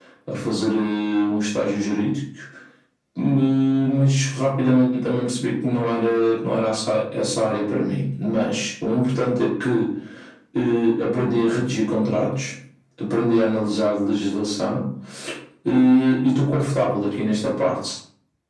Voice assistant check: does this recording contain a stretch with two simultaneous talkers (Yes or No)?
No